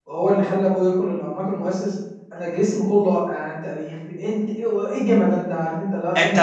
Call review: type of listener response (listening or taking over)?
taking over